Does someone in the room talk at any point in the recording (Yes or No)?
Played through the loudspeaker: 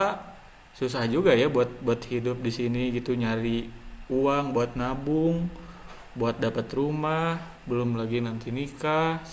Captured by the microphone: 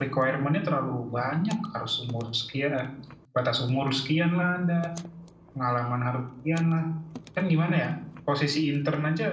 Yes